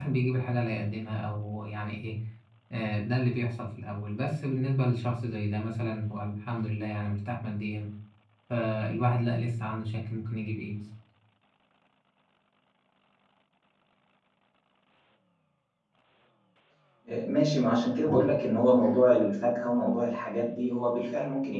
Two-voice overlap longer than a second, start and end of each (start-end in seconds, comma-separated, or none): none